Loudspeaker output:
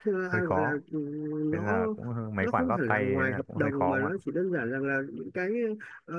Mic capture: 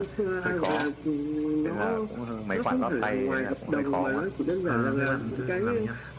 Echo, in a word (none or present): present